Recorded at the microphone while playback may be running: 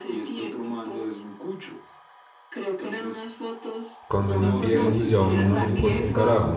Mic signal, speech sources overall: both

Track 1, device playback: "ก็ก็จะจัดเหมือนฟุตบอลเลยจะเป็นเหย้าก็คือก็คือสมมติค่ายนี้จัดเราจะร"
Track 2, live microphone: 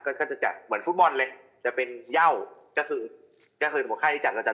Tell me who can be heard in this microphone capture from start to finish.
echo only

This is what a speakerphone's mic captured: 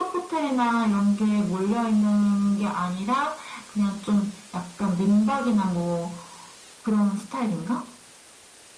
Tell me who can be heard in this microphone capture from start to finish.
echo only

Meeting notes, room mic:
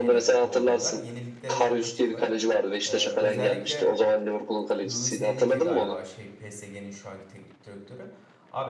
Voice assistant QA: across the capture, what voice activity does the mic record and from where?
both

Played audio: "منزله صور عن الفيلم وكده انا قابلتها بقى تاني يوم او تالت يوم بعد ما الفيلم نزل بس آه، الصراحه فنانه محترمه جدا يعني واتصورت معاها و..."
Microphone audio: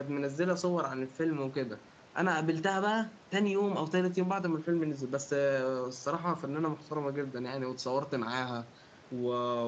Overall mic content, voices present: echo only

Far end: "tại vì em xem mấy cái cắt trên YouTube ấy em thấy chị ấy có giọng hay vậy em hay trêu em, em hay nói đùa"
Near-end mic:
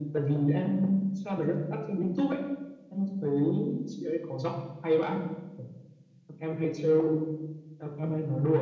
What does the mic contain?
echo only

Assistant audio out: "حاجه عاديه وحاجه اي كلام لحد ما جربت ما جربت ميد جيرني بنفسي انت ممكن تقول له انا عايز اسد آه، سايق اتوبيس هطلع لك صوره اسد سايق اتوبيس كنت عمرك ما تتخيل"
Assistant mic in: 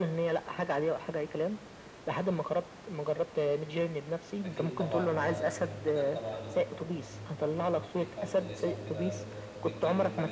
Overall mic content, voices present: both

